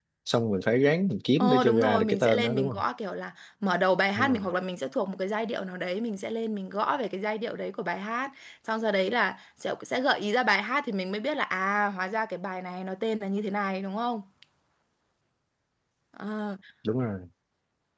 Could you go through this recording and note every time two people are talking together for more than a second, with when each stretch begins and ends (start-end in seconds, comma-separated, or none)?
1.4-2.8